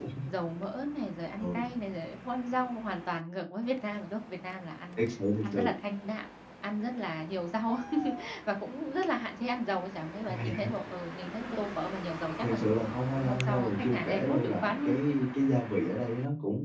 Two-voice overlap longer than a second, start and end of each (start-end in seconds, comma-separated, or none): 13.2-14.9